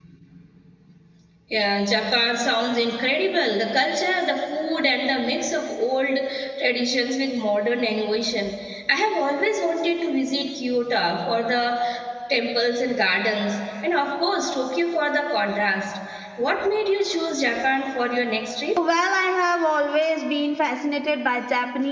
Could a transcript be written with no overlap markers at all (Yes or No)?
Yes